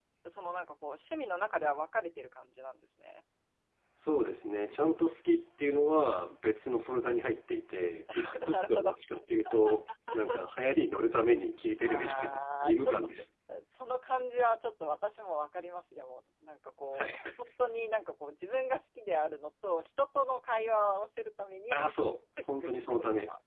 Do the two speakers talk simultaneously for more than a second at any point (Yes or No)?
Yes